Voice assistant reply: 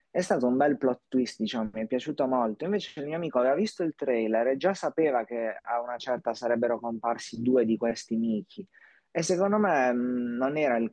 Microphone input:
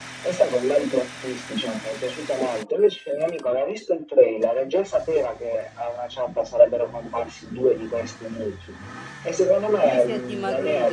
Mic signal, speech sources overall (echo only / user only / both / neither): both